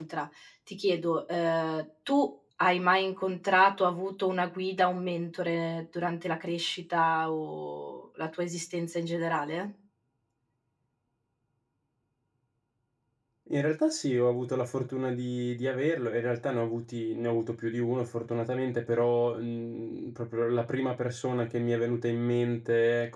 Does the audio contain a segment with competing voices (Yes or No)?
No